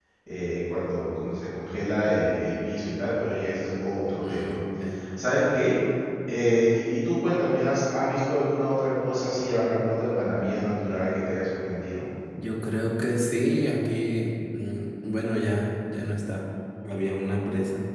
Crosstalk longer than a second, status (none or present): none